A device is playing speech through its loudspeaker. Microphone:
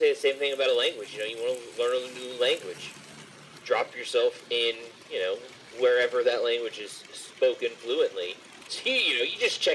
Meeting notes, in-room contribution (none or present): none